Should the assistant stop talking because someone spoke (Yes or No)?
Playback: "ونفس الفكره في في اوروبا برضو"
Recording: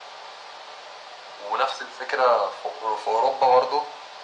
No